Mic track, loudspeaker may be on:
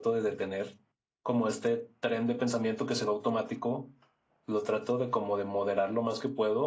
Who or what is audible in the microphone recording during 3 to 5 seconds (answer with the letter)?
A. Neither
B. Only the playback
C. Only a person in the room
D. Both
C